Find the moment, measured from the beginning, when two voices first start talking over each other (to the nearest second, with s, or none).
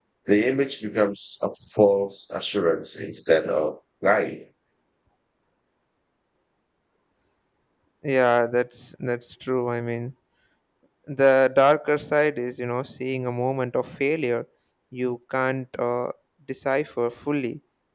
none